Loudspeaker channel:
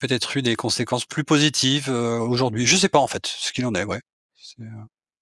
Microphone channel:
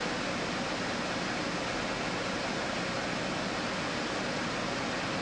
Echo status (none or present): none